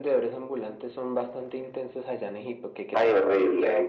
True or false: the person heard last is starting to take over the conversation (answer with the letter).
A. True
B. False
A